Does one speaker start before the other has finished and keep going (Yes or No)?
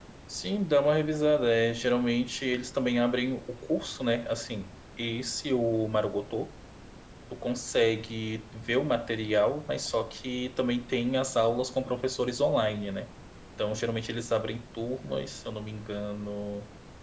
No